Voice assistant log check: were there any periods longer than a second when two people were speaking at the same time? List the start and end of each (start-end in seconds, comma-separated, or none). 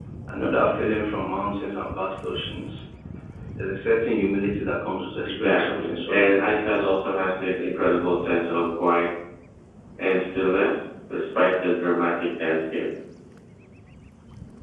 5.2-7.0